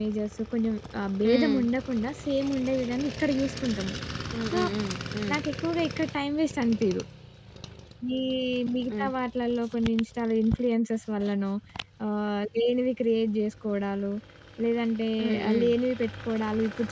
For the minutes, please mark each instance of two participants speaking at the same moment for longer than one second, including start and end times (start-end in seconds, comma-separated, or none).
none